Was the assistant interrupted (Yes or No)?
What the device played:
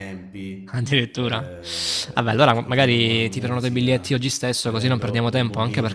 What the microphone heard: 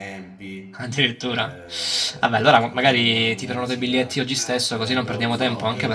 Yes